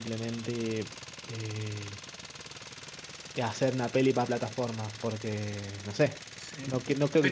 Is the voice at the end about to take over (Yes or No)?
Yes